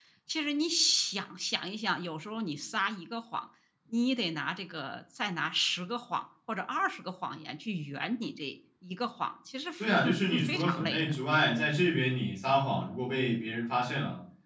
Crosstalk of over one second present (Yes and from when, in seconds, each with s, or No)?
Yes, from 9.8 s